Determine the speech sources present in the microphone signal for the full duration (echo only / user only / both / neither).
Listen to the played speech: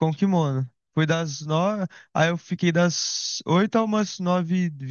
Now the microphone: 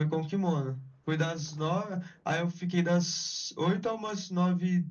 echo only